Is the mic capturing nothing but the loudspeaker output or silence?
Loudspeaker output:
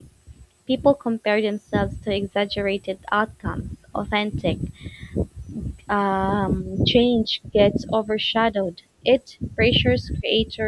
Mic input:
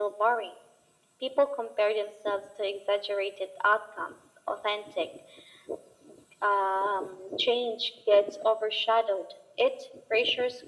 Yes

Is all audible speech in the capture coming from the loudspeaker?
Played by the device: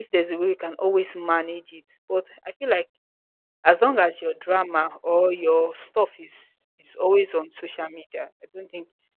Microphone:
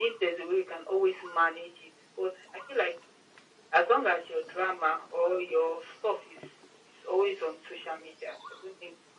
Yes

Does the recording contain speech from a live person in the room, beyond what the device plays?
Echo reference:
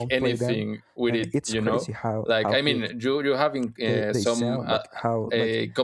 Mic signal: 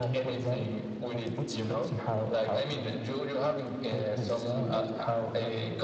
Yes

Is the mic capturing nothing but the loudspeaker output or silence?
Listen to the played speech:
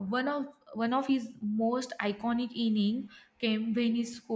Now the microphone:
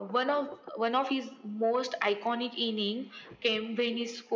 Yes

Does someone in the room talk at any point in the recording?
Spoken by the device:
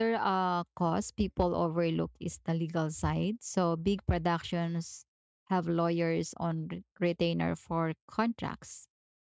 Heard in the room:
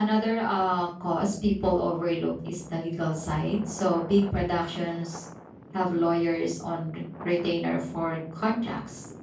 No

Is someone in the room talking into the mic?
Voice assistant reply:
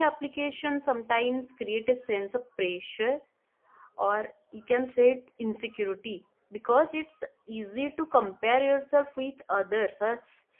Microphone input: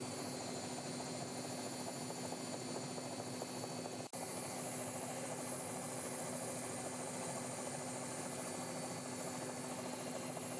No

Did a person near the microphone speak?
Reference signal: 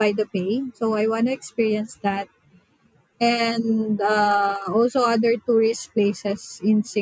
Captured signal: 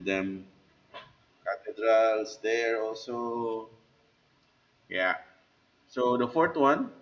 Yes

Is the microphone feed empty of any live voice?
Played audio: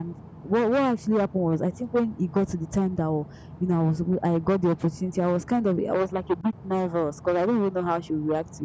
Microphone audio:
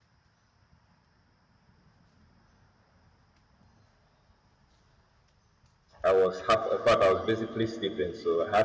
No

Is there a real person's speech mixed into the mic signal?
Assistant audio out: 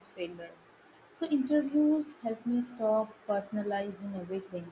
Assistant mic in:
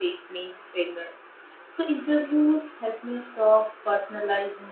No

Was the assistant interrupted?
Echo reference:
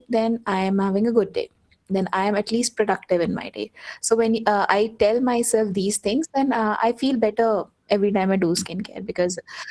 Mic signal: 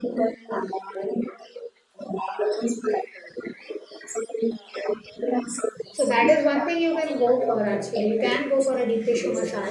Yes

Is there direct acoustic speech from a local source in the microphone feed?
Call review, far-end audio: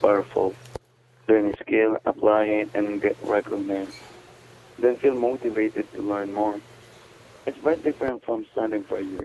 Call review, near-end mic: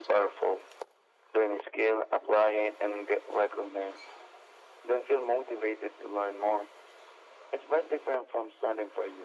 No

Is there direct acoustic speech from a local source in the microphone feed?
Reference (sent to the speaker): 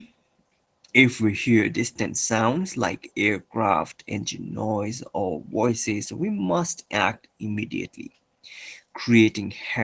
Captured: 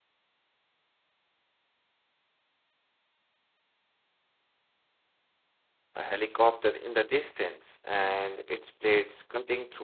Yes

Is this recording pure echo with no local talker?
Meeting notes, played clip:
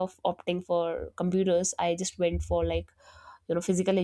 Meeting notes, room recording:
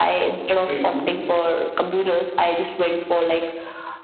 No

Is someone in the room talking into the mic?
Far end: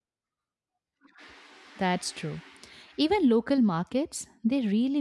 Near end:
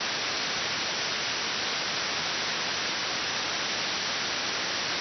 No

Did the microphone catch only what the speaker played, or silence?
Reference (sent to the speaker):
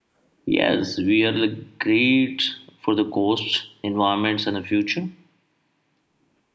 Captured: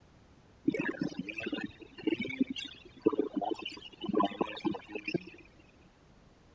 Yes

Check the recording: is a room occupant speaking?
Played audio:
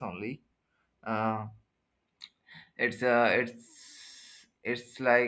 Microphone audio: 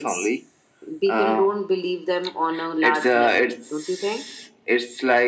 Yes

